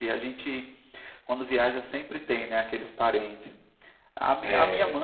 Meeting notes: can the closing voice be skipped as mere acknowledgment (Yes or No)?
Yes